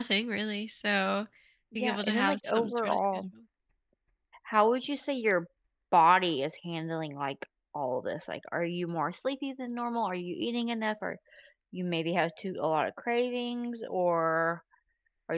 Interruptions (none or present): present